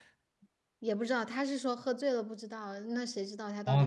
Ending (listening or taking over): taking over